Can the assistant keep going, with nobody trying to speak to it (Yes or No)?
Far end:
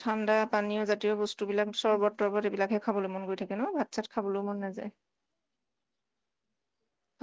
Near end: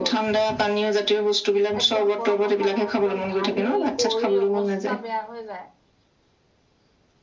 No